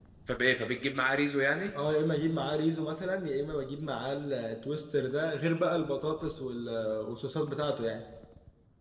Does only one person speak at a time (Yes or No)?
Yes